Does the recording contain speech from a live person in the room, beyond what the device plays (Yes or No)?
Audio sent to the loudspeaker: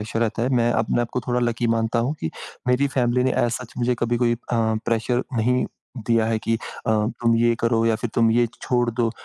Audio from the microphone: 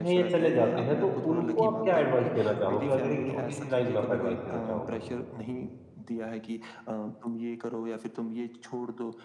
Yes